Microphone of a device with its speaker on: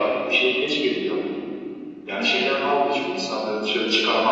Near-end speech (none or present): none